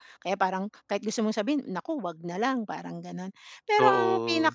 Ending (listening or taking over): listening